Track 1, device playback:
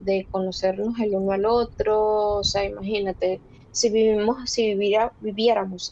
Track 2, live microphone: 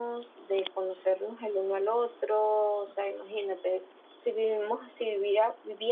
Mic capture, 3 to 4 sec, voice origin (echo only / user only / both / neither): echo only